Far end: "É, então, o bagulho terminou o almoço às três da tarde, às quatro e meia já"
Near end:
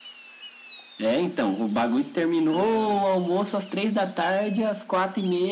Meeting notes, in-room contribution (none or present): present